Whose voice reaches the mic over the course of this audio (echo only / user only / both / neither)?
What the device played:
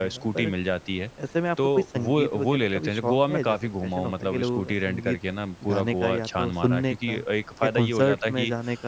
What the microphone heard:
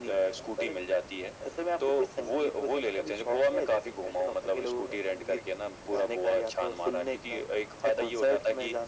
echo only